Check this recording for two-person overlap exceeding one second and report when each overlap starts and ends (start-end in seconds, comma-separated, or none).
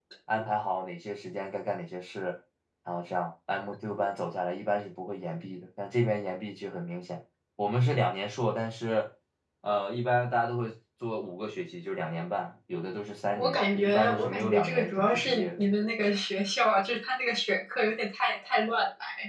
13.3-15.7